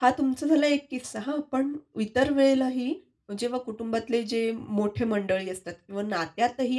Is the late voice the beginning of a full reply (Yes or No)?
No